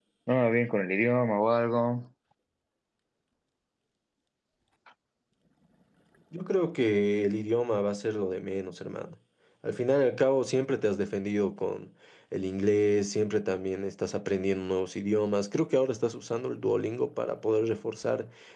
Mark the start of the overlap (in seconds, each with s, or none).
none